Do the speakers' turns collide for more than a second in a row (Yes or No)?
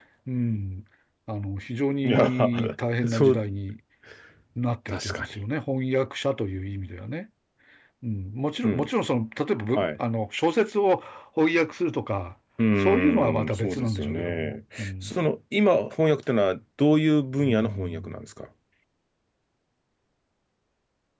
Yes